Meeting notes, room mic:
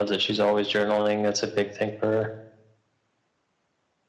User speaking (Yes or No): No